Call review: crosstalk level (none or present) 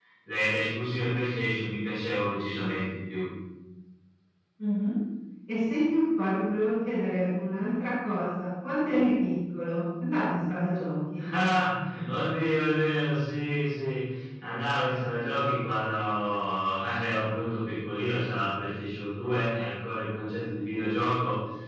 none